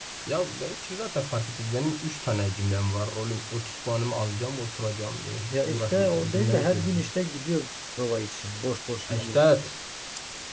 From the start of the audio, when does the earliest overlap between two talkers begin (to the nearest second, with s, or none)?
6 s